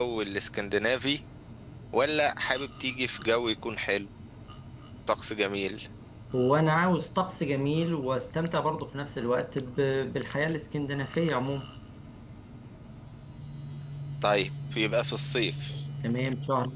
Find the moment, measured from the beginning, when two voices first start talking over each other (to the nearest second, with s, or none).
none